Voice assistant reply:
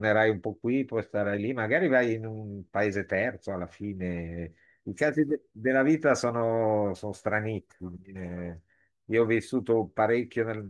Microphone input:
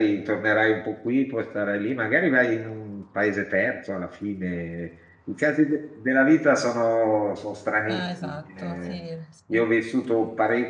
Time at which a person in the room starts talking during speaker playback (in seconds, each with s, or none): 7.8 s